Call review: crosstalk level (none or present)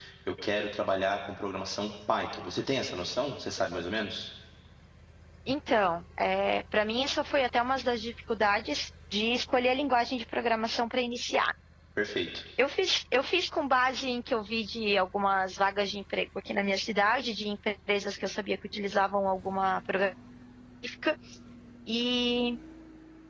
none